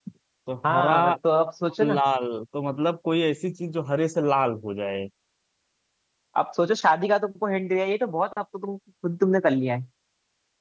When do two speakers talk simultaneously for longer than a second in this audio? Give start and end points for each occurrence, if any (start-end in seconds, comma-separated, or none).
none